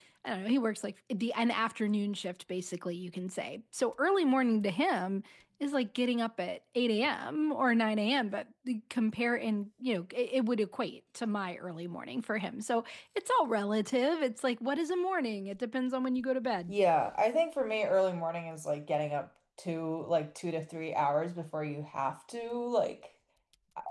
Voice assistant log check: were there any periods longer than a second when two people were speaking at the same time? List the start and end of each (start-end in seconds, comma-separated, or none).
none